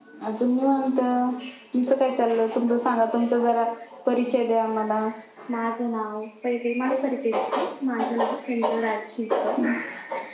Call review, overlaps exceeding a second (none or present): none